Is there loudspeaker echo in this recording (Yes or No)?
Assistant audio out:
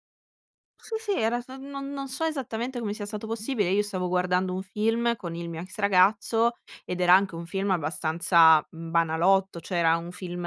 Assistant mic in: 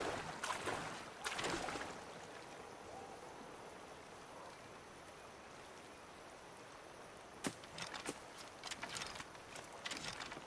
No